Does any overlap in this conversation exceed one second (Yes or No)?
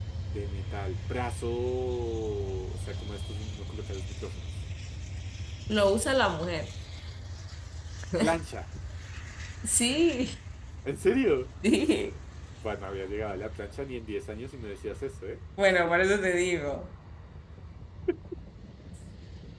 No